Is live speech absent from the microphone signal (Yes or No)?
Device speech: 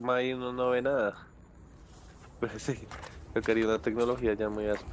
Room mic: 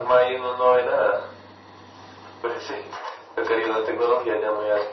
Yes